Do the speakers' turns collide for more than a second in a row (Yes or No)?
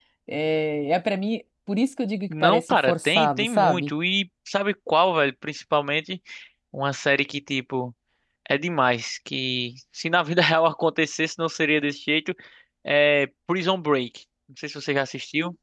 Yes